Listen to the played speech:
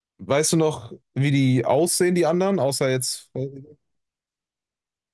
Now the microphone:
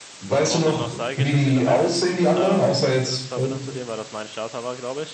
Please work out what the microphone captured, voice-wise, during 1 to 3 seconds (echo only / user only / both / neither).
both